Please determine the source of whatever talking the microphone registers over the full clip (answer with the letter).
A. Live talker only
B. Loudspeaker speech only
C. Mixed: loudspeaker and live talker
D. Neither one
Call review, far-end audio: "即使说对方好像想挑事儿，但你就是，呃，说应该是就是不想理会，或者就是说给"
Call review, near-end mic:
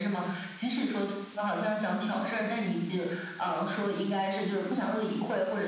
B